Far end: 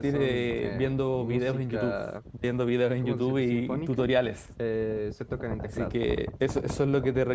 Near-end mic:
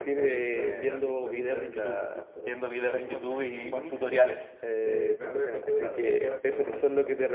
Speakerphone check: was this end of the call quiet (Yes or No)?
No